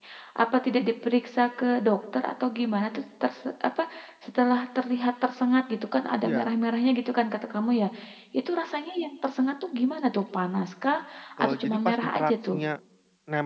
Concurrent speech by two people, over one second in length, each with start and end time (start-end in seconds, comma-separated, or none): 11.4-12.6